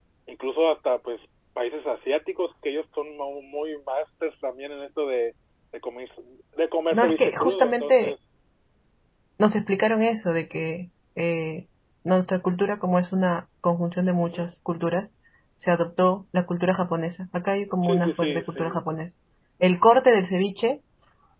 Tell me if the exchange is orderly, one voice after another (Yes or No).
No